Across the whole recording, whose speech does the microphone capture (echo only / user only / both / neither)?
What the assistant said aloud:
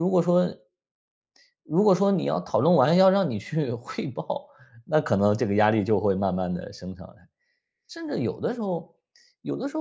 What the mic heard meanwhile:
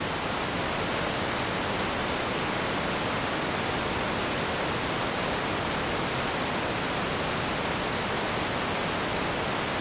neither